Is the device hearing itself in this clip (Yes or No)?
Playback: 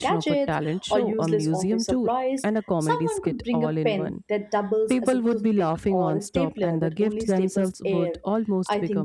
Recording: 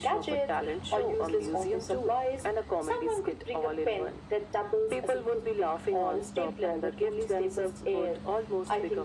Yes